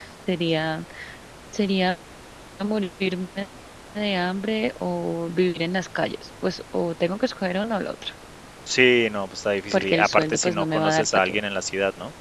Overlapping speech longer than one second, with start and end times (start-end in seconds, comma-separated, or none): 9.7-11.4